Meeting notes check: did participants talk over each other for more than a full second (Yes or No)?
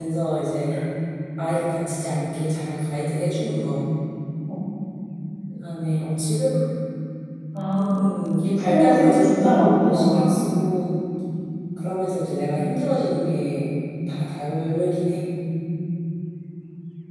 Yes